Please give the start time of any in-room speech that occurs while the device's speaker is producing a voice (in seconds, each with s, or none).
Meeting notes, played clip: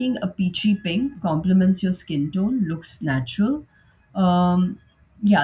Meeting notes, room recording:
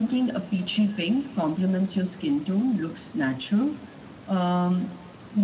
none